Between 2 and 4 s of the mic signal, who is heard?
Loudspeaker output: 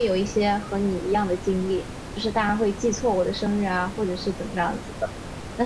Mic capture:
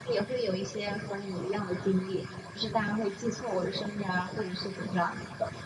echo only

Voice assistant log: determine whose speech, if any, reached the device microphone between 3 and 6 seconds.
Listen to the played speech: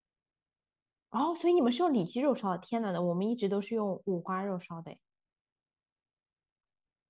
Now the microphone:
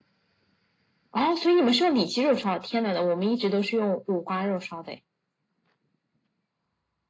echo only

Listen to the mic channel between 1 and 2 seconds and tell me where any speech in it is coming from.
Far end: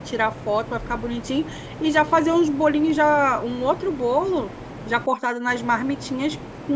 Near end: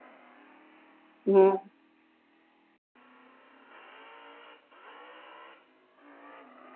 user only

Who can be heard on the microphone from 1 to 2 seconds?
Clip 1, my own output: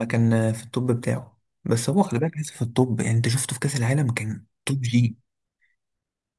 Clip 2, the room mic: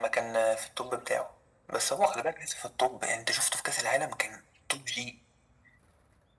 echo only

